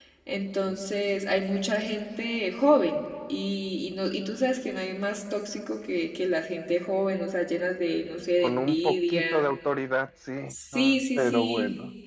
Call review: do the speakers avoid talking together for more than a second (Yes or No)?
No